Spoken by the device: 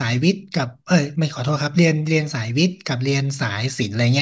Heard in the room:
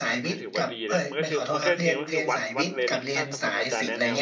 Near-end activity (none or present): present